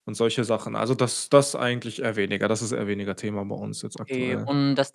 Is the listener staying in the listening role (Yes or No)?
No